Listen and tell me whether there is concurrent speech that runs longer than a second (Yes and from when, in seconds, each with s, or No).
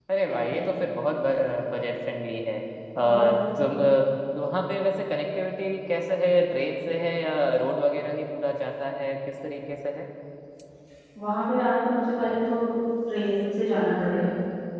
No